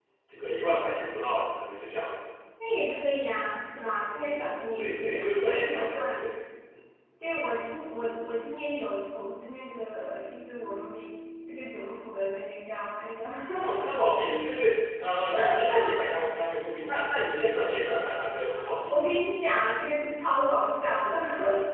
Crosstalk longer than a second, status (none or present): present